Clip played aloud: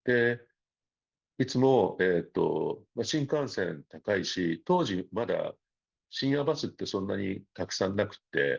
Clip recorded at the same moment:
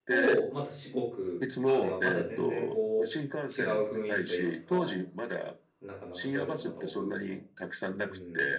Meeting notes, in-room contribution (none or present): present